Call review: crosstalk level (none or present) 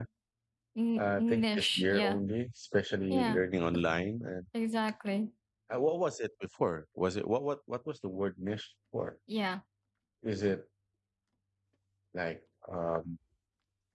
present